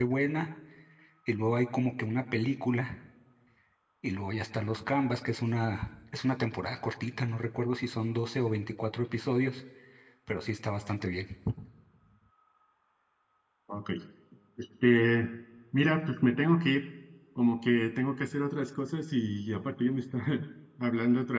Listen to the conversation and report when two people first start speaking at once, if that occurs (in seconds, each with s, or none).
none